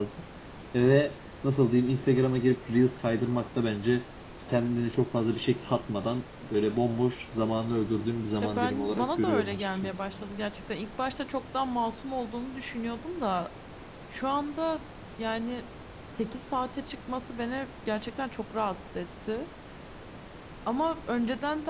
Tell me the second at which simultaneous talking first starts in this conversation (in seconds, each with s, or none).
8.4 s